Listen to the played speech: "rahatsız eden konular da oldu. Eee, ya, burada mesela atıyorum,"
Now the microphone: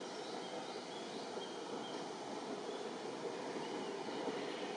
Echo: none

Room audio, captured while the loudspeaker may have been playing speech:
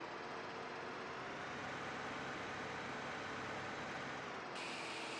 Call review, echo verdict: none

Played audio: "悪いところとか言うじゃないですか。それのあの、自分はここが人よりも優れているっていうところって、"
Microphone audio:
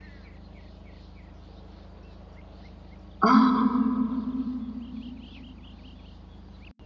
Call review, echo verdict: none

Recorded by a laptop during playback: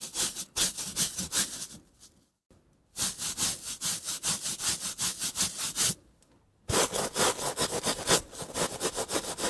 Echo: none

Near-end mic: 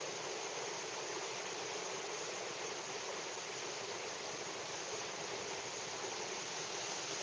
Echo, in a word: none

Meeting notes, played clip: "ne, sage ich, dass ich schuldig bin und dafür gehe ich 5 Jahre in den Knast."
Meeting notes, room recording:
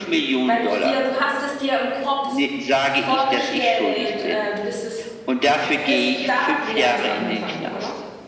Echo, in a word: present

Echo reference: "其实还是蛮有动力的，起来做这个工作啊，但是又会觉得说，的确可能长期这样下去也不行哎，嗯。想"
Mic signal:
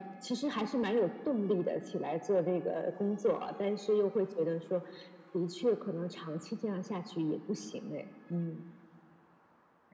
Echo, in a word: present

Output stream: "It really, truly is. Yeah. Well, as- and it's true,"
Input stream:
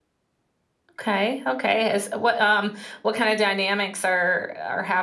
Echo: none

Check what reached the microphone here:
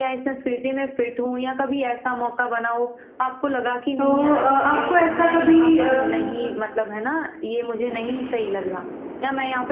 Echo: present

